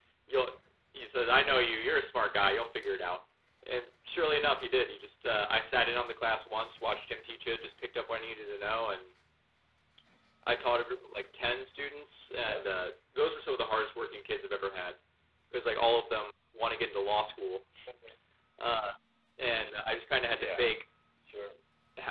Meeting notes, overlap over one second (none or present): none